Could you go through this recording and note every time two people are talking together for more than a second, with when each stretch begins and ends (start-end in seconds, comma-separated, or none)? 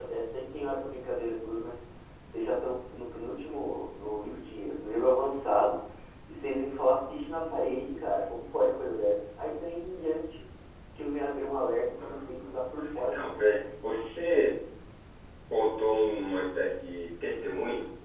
12.0-13.4